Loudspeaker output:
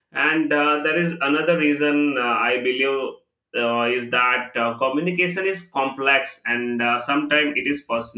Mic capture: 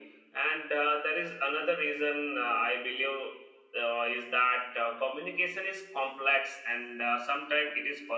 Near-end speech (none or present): none